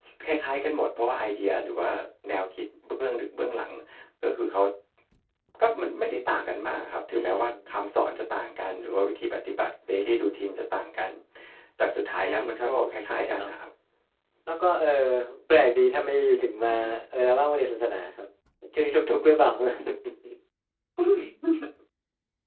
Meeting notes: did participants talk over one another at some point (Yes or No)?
Yes